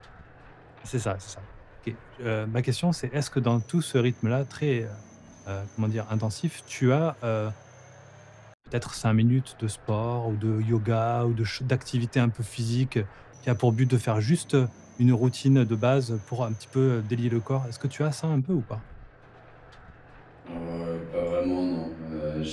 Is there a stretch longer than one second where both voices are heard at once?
No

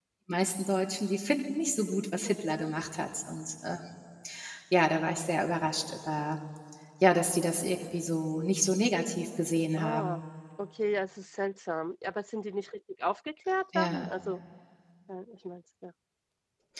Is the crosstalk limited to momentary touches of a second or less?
Yes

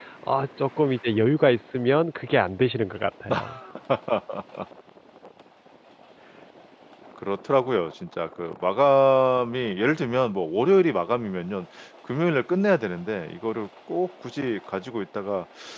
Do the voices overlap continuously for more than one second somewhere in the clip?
No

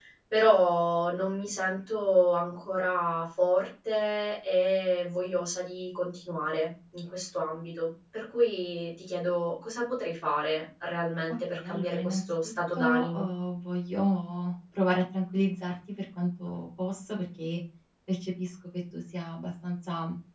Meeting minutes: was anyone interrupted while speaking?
Yes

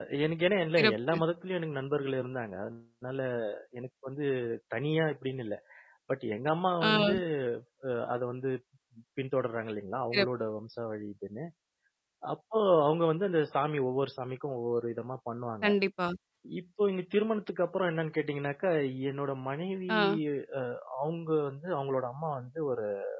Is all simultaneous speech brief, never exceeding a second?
Yes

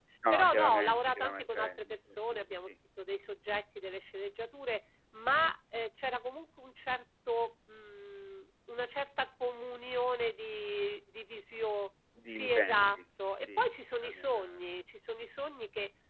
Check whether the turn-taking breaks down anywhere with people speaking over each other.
Yes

